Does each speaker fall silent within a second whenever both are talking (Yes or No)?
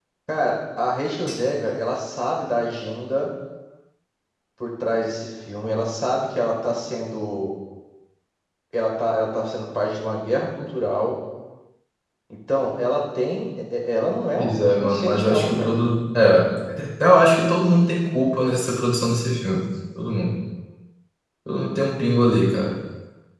No